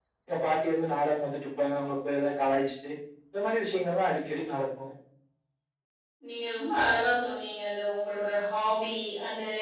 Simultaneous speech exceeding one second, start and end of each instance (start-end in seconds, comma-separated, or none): none